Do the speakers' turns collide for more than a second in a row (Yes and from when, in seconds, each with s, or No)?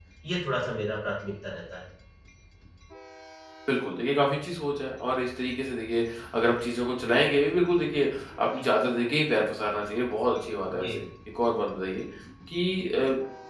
No